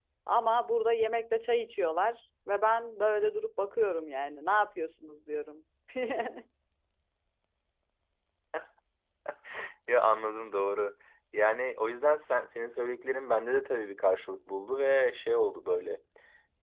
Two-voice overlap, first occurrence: none

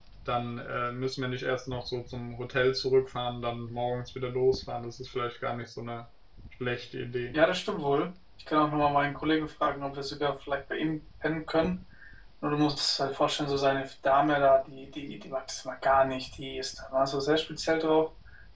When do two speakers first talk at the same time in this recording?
none

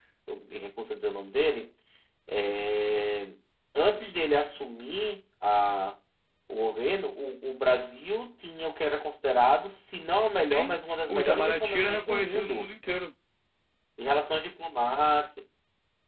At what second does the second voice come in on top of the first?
10 s

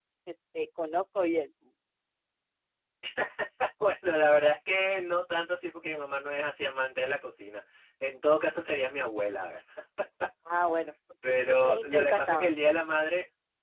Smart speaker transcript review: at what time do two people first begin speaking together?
11 s

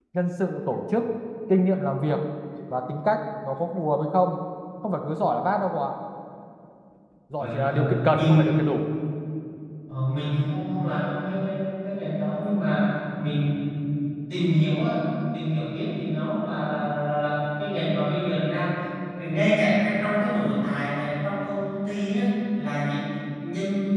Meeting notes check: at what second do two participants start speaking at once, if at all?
7 s

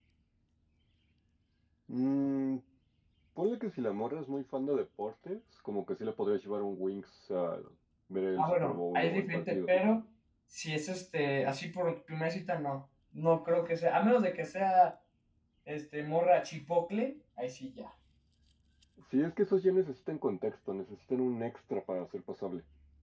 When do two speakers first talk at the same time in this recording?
8 s

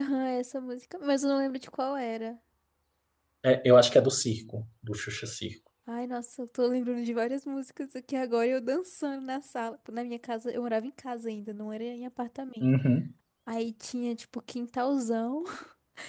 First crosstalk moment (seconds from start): none

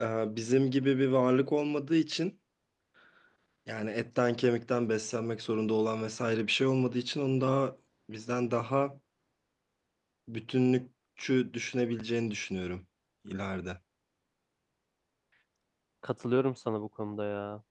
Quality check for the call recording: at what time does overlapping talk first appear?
none

